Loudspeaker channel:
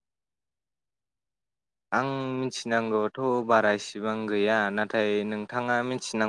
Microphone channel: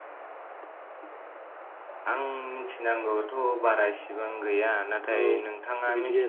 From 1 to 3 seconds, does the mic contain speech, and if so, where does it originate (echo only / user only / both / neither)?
echo only